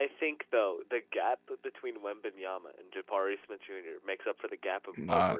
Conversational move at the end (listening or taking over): taking over